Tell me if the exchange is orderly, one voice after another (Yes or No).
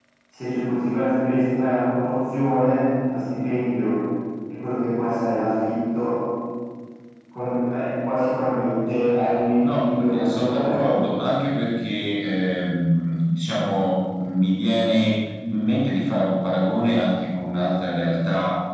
No